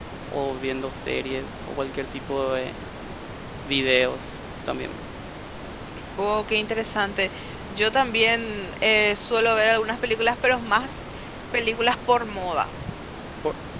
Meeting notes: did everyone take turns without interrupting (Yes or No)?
Yes